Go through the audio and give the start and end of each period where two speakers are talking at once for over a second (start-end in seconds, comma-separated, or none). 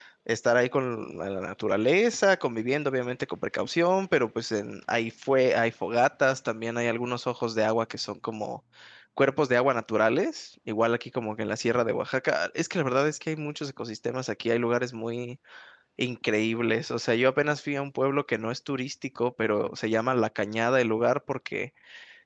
none